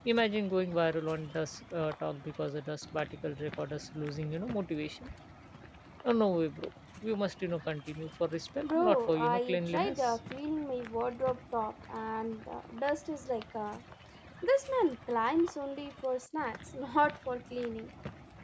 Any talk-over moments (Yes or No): Yes